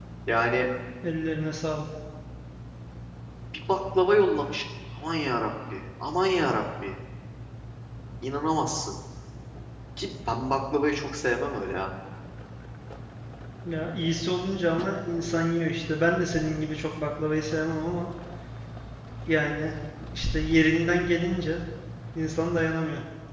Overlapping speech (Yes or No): No